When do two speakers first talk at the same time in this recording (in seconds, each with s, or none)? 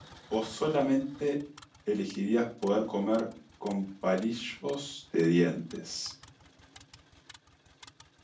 none